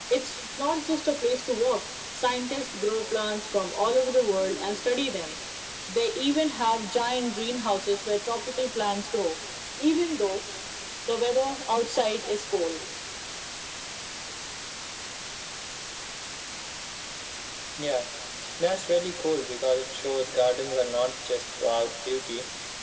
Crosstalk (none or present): none